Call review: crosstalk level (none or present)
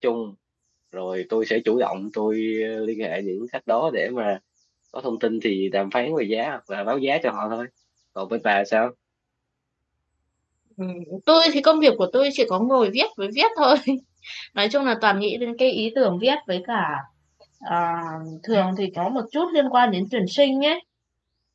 none